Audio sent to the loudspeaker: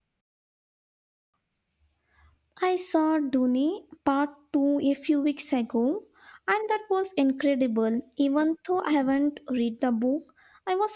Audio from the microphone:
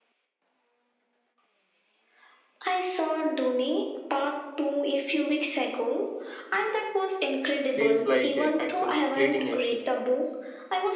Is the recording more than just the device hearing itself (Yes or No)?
Yes